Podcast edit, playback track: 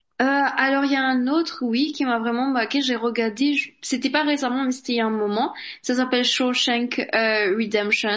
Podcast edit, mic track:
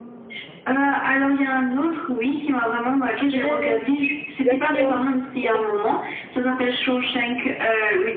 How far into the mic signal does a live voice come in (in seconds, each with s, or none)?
3.3 s